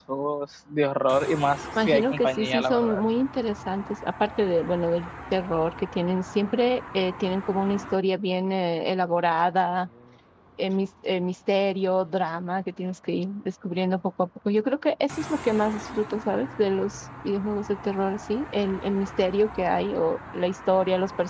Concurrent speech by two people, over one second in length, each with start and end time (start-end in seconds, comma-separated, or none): 1.8-3.0